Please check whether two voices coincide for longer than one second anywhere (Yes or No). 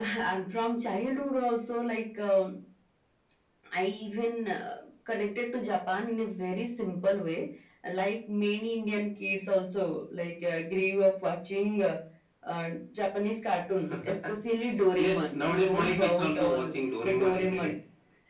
Yes